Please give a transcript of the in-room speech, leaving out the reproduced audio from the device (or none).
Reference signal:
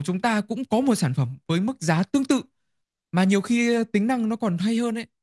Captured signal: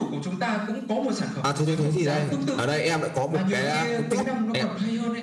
à thế thế thế thì đây. Ở đây em lại có một cái à, cái bút anh ạ.